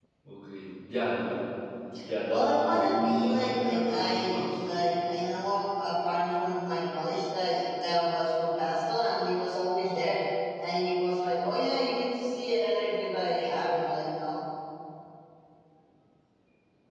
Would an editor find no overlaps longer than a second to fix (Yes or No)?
No